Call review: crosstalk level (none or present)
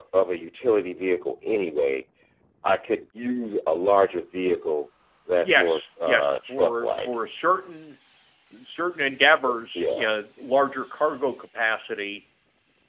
present